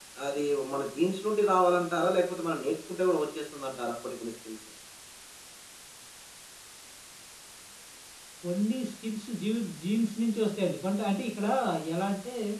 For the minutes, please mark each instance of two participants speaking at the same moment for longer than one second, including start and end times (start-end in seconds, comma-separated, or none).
none